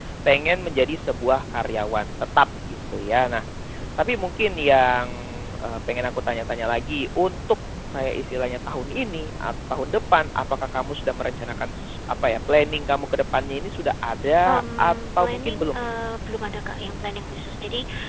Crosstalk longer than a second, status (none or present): present